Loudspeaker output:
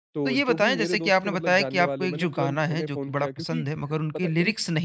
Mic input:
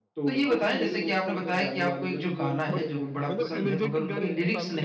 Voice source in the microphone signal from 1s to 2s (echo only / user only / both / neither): echo only